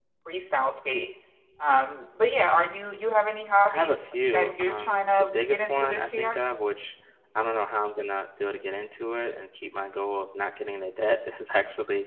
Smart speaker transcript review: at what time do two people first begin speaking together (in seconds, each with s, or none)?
3.7 s